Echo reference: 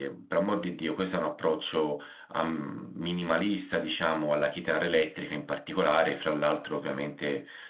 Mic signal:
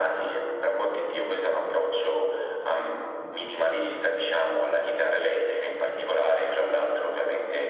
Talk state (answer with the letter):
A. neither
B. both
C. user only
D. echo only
D